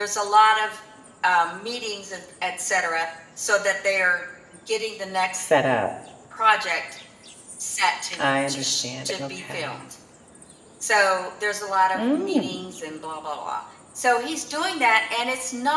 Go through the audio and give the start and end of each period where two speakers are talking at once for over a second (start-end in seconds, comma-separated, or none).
8.2-9.8